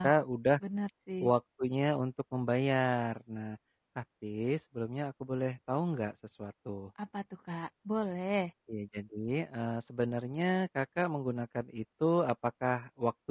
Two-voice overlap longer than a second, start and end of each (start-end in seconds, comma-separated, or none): none